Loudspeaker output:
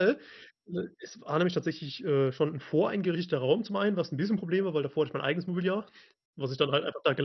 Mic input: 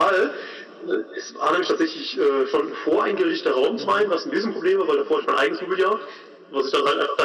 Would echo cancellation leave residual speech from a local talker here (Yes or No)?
Yes